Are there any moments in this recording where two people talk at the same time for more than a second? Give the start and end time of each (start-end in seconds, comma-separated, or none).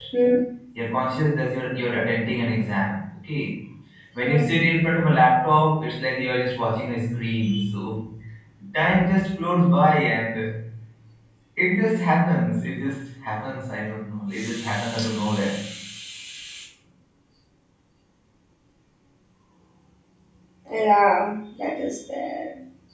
none